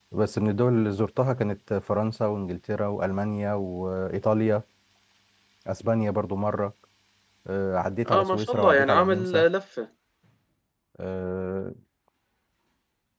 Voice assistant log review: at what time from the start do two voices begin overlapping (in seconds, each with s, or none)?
8.1 s